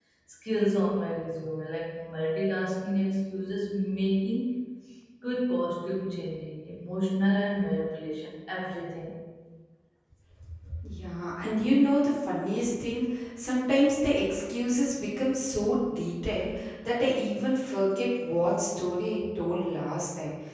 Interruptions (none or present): none